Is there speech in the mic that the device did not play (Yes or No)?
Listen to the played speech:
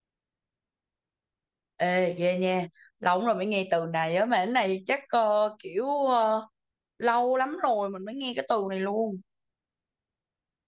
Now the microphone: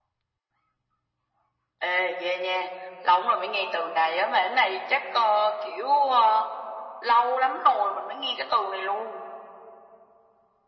No